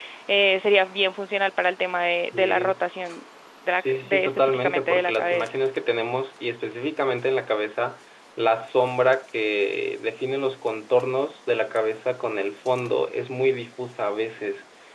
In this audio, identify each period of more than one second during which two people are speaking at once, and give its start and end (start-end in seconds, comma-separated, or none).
3.7-5.5